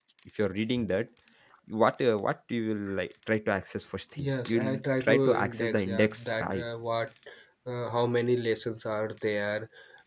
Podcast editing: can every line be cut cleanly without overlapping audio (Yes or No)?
No